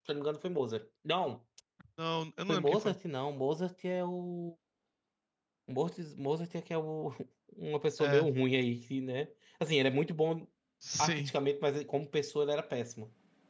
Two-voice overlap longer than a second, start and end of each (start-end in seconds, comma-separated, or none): none